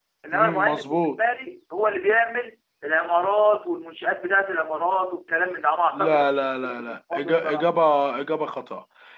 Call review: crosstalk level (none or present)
present